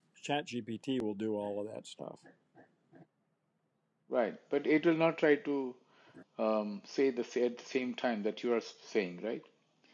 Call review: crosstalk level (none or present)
none